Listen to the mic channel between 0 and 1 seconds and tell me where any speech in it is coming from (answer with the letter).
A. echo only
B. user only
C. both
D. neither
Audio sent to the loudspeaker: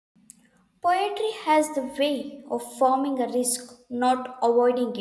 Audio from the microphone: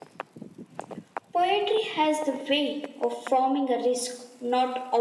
D